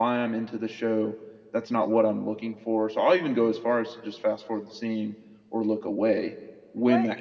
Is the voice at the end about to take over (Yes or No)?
Yes